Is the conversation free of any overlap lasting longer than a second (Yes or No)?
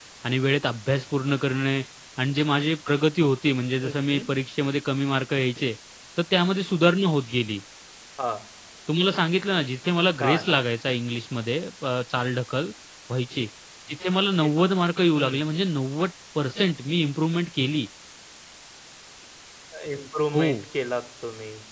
Yes